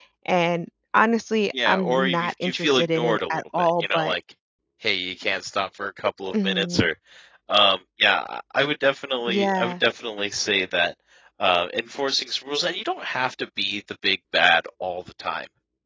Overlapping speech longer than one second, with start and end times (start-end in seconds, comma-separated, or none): 1.6-4.1